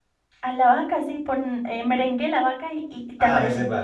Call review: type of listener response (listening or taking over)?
taking over